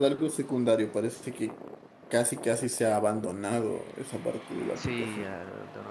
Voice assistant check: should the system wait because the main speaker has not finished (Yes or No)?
No